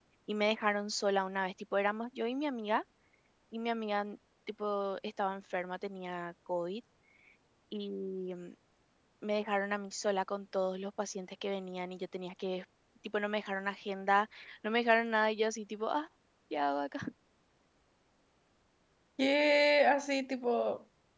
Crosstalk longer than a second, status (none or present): none